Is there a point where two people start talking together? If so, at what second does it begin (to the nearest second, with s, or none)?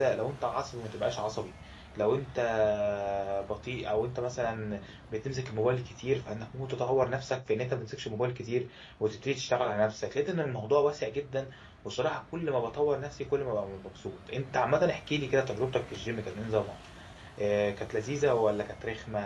none